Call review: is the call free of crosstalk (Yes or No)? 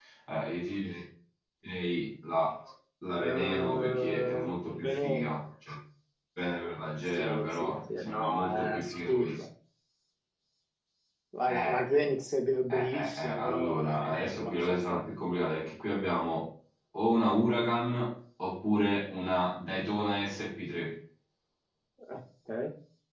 No